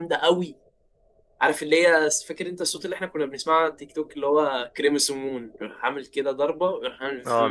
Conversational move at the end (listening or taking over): taking over